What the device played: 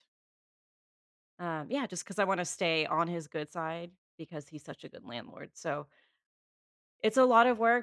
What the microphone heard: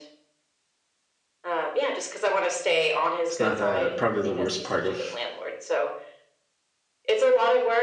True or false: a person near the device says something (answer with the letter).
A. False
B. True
B